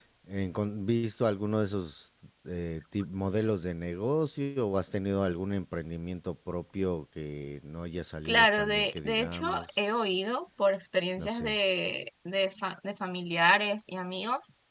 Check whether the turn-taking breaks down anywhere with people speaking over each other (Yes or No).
Yes